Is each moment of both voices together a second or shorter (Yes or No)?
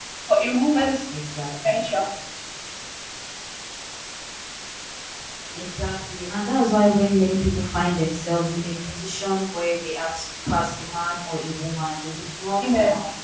Yes